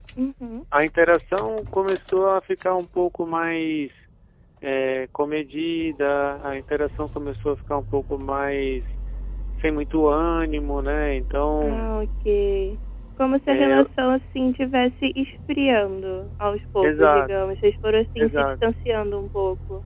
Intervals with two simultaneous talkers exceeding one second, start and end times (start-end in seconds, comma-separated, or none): none